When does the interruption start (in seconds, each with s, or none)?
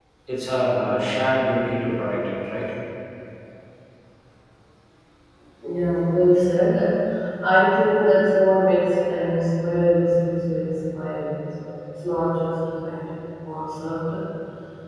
none